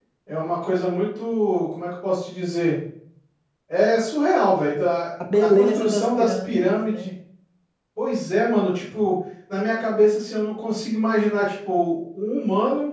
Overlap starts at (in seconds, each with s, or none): 5.3 s